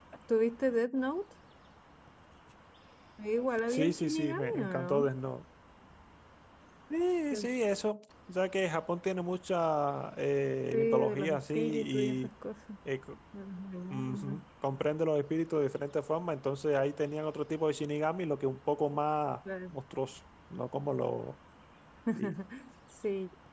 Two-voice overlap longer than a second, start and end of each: 3.7-5.1, 10.7-12.3

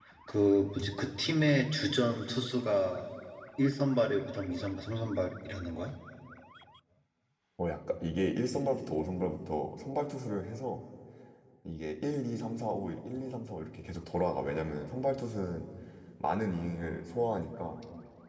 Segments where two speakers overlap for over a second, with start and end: none

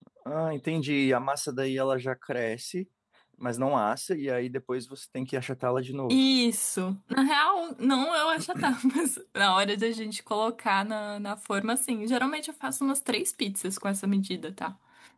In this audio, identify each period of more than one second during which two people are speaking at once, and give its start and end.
none

